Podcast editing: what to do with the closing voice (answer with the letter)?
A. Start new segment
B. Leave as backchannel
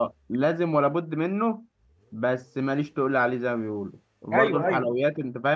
B